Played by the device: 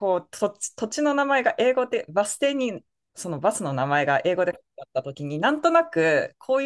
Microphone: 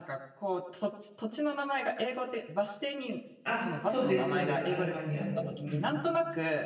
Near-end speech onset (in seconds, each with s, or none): 3.4 s